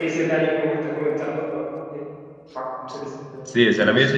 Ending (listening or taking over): taking over